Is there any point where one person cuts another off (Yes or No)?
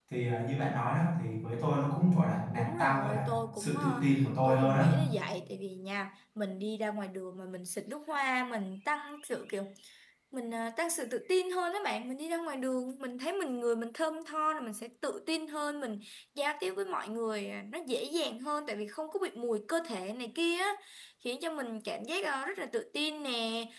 Yes